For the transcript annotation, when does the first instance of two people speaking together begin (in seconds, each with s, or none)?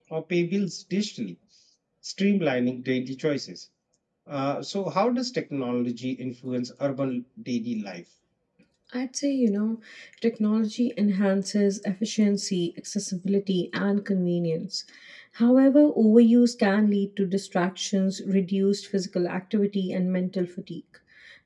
none